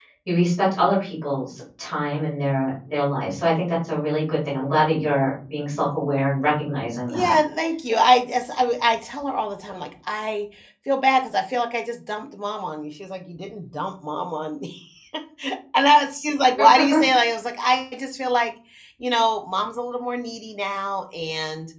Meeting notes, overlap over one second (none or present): none